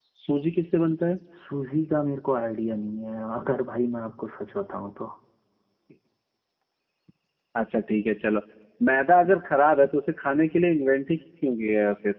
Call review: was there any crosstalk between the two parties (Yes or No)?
No